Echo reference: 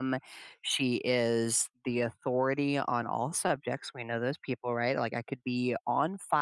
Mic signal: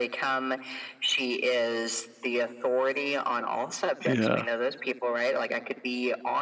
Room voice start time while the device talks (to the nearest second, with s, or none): 4 s